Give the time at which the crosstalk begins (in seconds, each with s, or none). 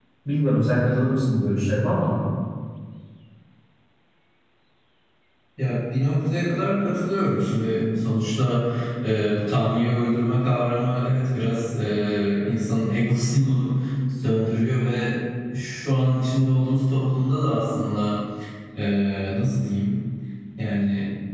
none